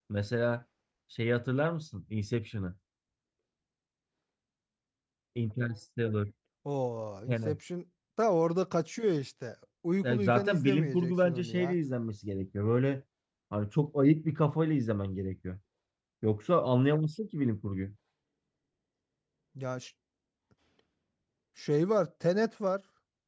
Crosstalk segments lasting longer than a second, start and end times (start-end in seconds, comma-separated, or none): 10.0-11.8